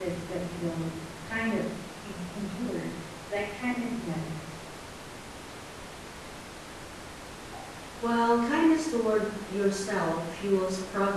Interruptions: none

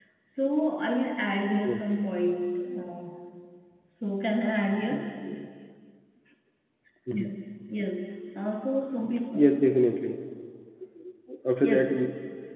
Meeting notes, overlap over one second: none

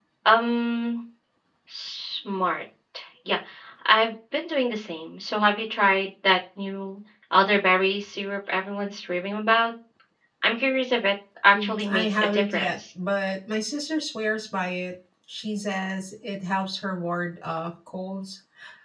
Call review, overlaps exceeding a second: present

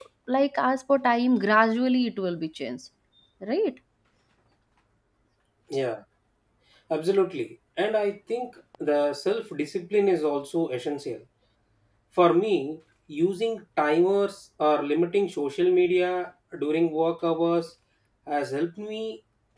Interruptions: none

